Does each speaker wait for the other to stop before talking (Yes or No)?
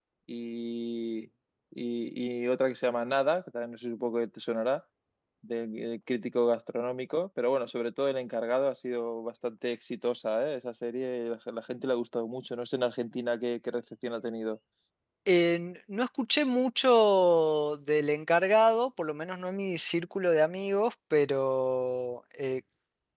Yes